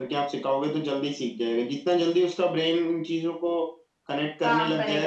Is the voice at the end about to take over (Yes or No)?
No